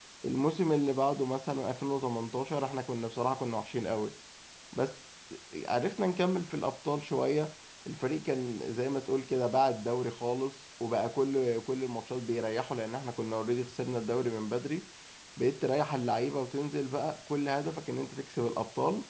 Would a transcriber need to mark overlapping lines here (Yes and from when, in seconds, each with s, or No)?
No